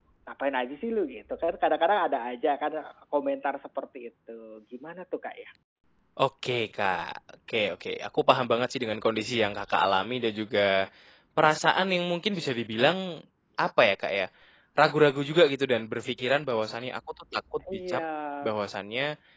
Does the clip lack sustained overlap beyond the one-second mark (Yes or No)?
Yes